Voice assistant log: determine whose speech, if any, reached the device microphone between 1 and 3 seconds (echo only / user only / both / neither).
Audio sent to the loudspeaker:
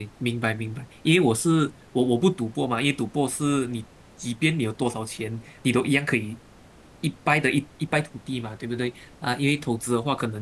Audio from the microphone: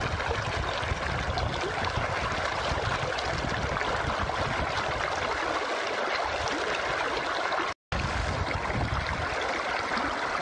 neither